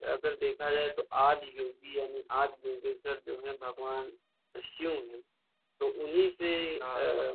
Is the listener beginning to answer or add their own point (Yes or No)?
No